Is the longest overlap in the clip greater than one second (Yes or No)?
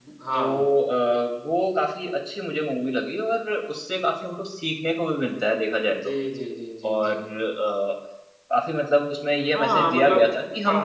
Yes